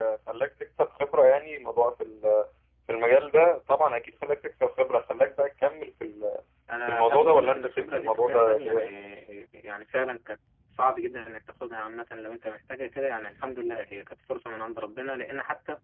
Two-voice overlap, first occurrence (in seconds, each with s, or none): 6.9 s